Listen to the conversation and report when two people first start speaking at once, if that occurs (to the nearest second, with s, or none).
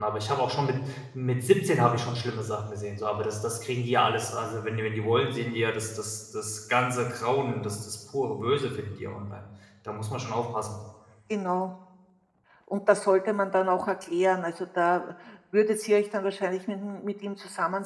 none